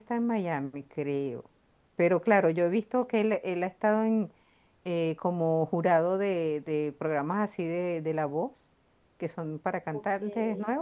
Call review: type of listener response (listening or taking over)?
listening